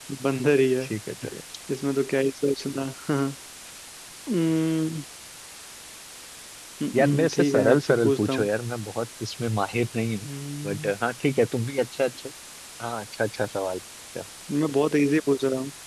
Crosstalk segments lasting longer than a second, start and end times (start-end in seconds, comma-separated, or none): 6.9-8.5